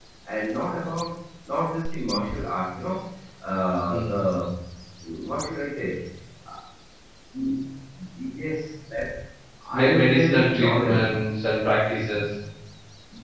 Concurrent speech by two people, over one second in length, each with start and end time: 9.8-11.0

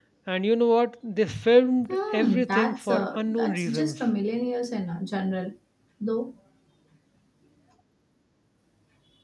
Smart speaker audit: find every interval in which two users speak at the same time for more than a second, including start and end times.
1.9-4.0

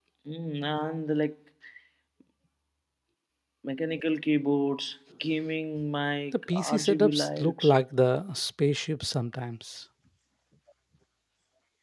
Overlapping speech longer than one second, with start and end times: 6.5-7.7

